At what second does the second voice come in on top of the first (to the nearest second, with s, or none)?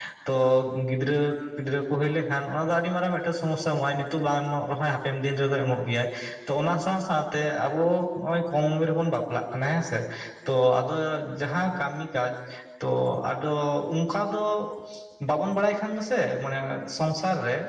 none